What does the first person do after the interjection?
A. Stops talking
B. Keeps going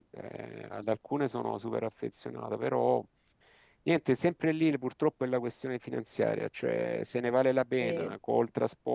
B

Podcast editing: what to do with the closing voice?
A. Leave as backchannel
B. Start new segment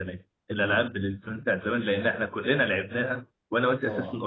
A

